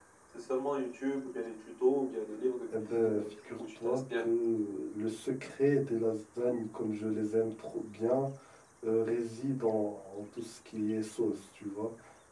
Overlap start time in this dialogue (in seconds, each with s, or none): 2.7 s